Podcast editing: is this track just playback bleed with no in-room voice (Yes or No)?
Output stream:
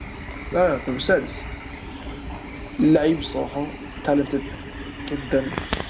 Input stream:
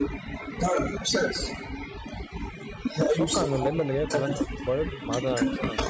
No